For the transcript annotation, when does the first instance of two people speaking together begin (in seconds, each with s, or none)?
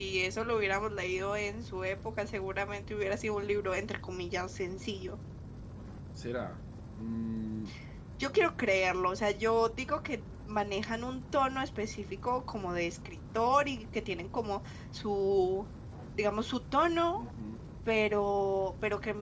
none